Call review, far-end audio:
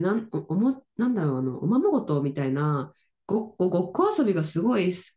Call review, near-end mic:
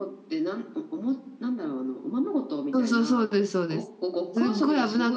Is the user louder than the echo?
Yes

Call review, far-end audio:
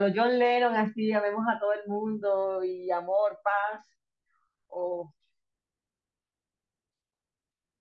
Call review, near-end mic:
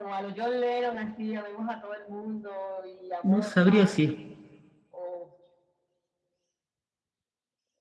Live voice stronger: Yes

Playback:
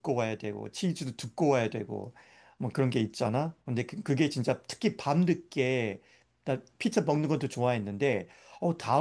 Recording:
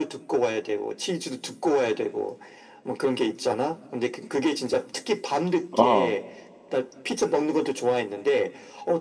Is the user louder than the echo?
Yes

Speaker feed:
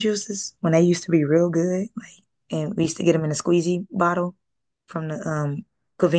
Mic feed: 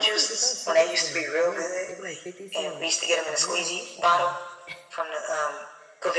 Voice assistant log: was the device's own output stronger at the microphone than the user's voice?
Yes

